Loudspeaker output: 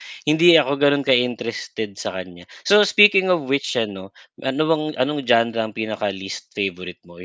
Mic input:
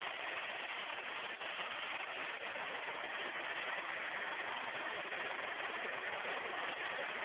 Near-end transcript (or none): none